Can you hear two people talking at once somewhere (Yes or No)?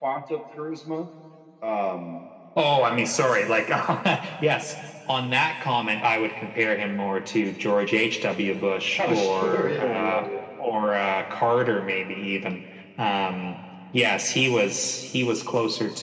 Yes